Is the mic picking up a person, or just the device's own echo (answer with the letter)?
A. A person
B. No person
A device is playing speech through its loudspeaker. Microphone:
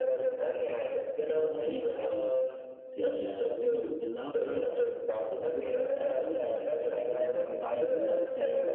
A